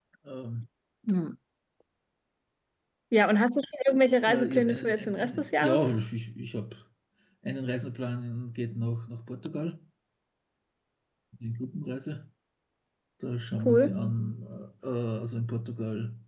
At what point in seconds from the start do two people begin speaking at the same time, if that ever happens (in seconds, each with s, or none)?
4.3 s